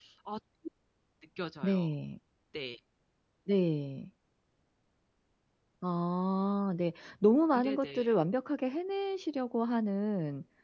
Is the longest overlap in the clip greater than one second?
No

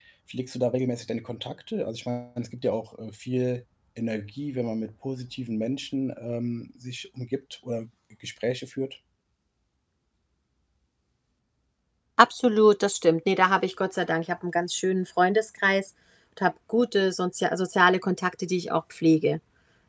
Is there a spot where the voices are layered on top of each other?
No

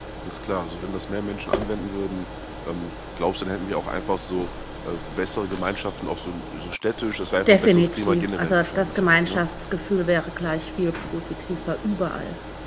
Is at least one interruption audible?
Yes, from 7.5 s

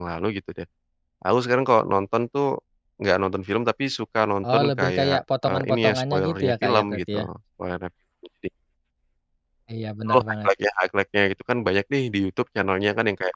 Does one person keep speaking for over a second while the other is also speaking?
Yes, from 4.4 s

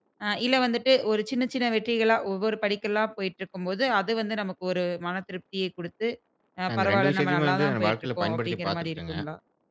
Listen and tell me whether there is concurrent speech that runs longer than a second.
Yes, from 6.7 s

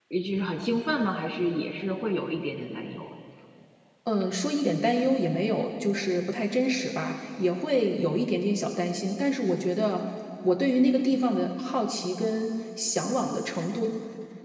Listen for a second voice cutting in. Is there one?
No

